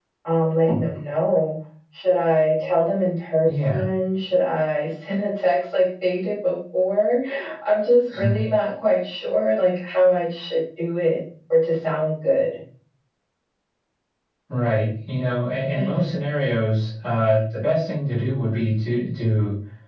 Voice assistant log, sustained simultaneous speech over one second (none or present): none